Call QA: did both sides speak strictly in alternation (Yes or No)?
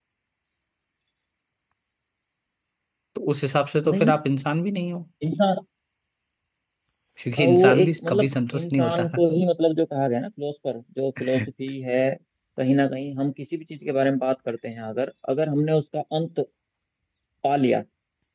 No